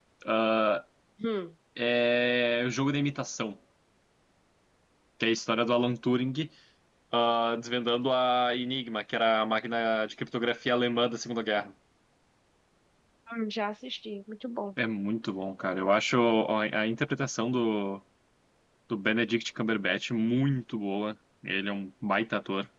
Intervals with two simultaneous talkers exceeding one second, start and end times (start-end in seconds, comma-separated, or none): none